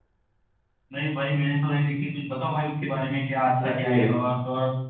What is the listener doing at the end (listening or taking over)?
listening